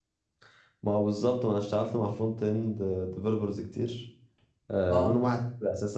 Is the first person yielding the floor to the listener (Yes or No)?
No